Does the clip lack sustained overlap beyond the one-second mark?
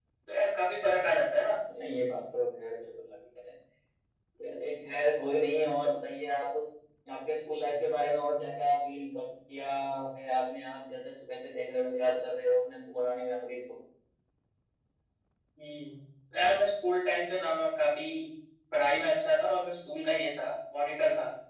Yes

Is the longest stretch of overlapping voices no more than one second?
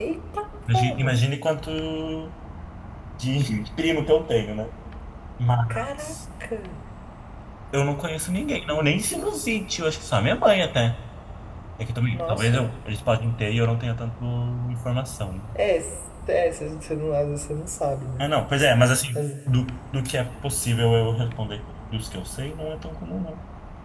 Yes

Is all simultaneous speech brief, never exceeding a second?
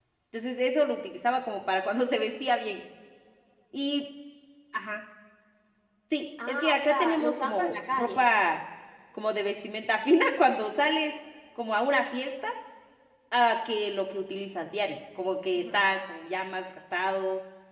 No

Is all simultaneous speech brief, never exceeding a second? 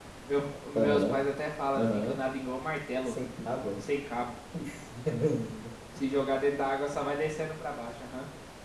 Yes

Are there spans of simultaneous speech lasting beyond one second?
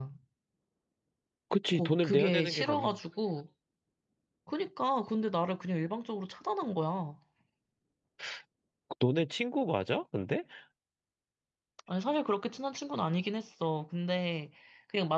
Yes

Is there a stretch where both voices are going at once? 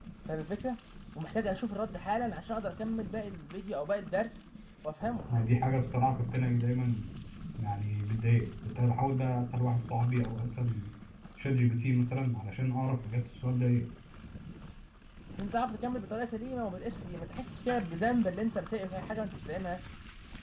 No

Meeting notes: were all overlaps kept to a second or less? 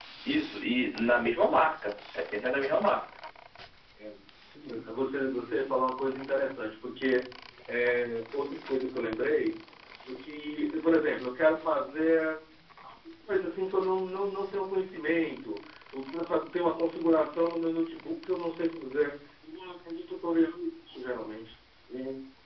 Yes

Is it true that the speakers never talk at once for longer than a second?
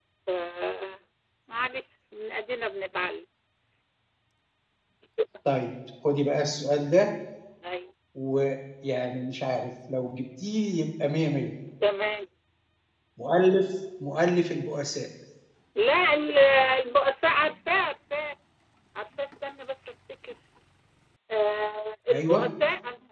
Yes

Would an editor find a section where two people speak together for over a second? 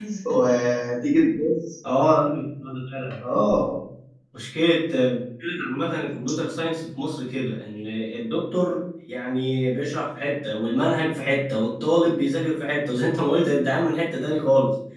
No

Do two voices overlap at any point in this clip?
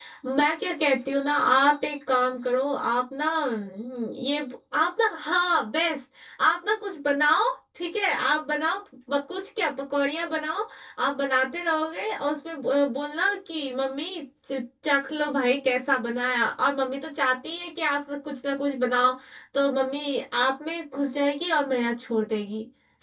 No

